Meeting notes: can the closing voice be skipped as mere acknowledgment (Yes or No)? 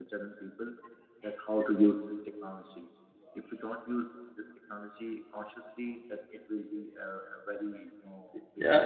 No